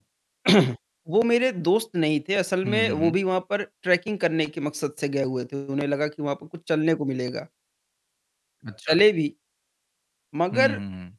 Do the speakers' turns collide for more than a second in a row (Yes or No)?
No